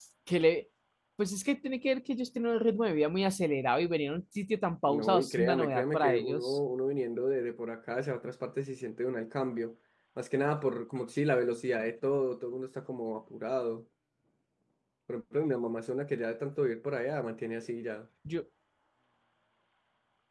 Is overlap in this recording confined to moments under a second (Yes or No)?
No